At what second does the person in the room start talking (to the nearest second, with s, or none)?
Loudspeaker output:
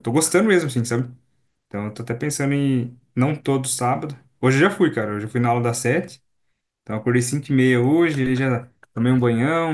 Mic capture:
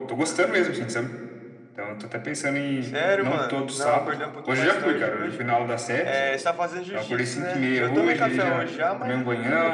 3 s